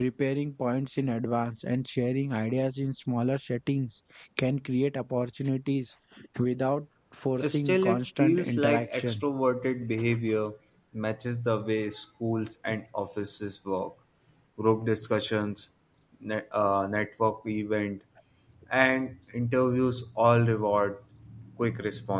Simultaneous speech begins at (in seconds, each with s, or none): 7.4 s